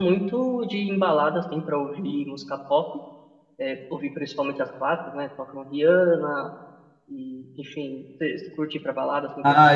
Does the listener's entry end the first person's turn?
Yes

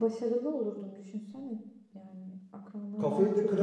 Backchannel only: No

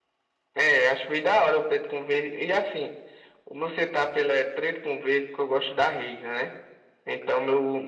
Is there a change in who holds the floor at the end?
No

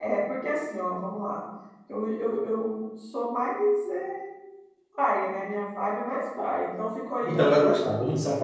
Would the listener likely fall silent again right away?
No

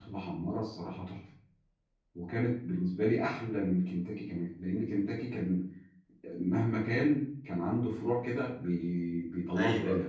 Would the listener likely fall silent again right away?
No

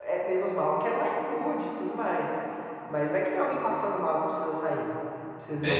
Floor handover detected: Yes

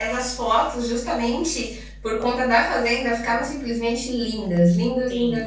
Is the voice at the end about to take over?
Yes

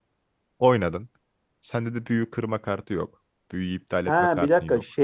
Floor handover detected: Yes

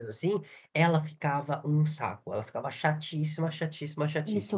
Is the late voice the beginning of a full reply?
No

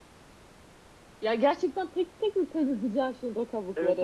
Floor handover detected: Yes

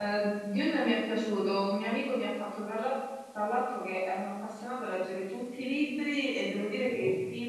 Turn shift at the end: No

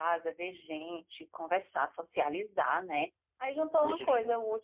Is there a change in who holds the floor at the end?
No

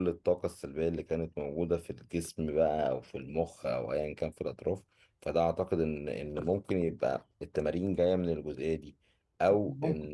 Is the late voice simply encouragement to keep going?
Yes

